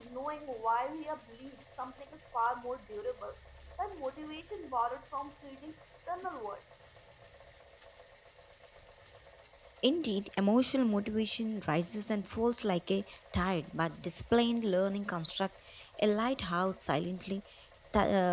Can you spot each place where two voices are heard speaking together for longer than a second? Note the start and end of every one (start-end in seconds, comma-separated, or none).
none